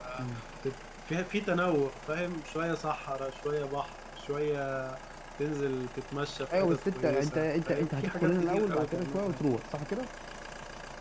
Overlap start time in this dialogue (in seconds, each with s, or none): 6.5 s